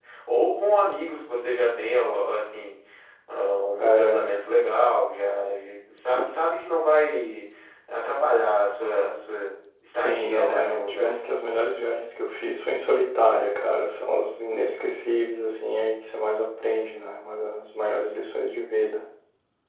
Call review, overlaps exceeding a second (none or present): present